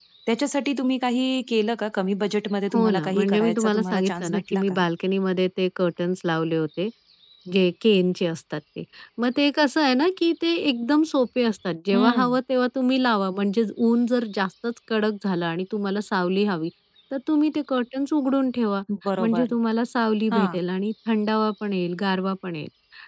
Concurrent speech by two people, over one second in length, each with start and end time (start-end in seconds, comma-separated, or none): 2.7-4.8